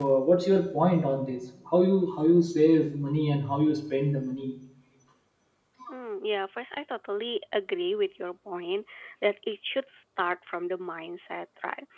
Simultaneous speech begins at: none

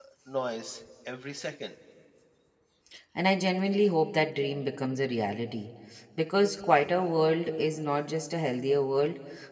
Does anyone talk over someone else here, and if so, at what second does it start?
none

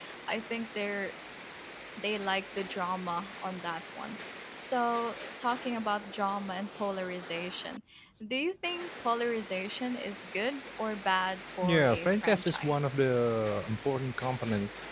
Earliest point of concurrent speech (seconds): 11.6 s

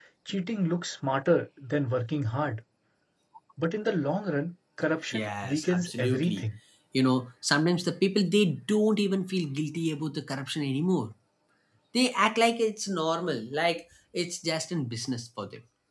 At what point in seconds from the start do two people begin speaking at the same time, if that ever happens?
5.1 s

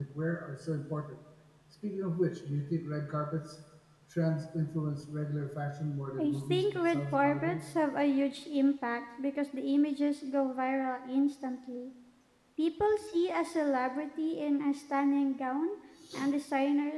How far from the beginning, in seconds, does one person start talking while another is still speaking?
6.2 s

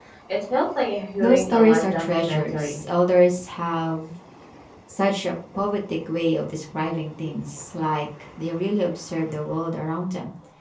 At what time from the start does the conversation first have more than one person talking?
1.2 s

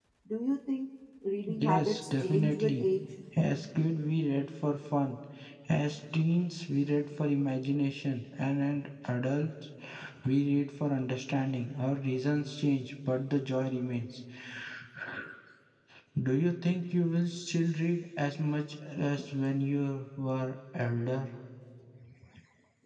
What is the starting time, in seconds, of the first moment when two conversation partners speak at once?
1.5 s

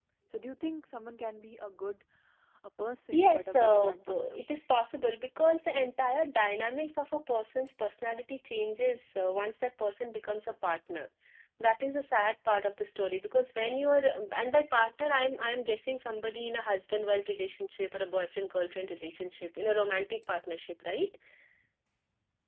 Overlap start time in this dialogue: 3.1 s

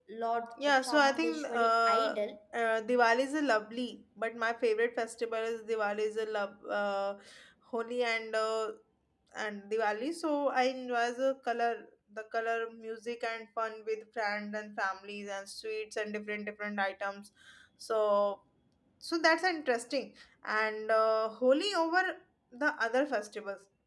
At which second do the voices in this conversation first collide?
0.8 s

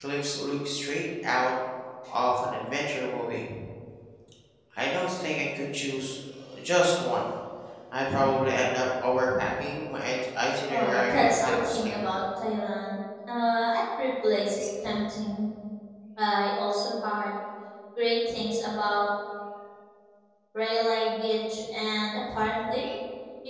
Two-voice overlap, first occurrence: 10.7 s

